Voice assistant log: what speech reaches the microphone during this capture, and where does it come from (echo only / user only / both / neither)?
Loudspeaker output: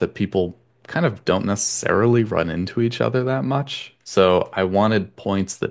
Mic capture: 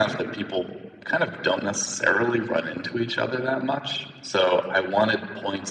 echo only